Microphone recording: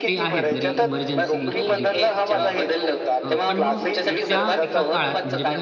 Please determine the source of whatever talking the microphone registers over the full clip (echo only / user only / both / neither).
both